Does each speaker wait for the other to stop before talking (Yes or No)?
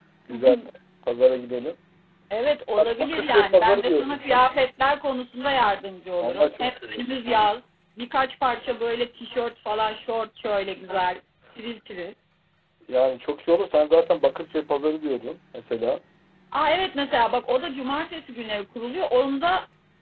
No